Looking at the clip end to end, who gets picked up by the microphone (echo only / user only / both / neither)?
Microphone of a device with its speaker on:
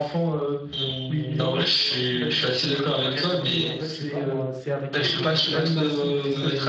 both